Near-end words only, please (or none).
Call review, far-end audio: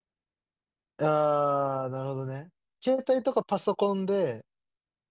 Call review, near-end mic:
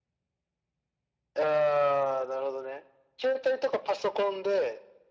none